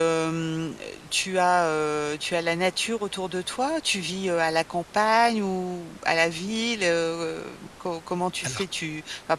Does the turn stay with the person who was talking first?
Yes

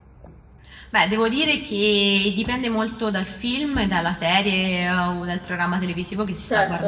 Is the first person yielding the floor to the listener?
No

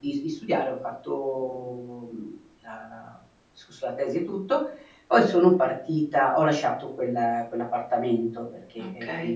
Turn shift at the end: No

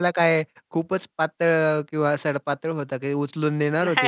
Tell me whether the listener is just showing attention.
No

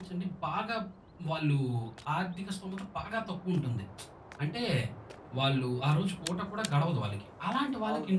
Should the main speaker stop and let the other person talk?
No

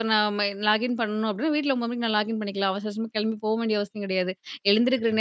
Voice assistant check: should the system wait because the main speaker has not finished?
Yes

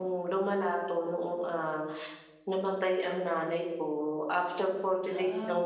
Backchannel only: Yes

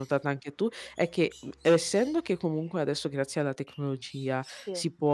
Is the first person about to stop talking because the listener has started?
No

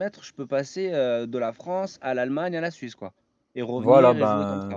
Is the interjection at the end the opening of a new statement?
Yes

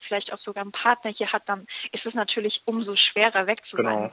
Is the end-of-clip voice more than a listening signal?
No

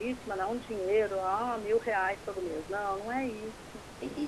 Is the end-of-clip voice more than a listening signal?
Yes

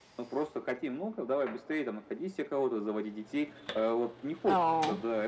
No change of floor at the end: Yes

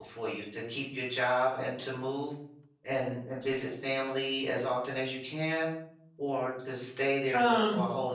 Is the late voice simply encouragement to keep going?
Yes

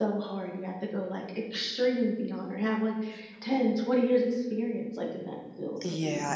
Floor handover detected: Yes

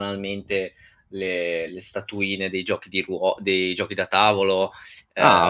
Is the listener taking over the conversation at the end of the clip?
Yes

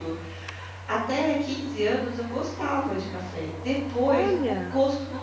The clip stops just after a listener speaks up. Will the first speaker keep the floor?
Yes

